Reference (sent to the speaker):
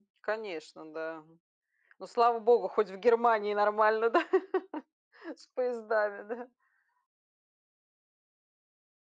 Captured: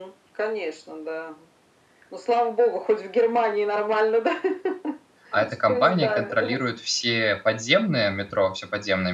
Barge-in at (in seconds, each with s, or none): 5.3 s